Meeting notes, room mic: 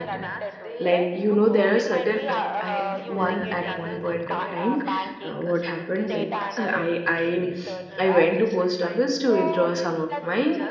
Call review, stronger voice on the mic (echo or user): user